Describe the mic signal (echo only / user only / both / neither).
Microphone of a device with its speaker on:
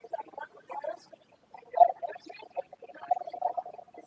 echo only